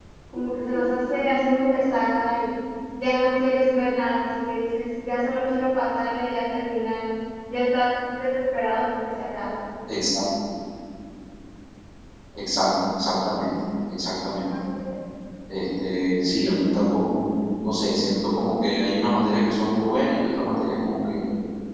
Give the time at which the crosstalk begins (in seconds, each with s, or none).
none